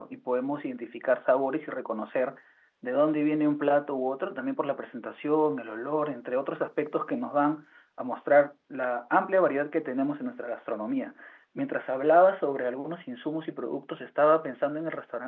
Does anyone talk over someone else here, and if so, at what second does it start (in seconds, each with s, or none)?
none